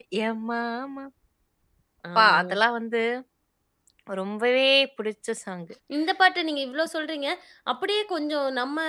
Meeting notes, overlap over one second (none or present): none